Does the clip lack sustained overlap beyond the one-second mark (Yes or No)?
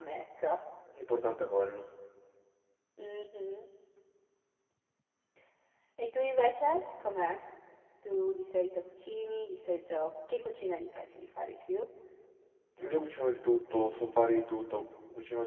Yes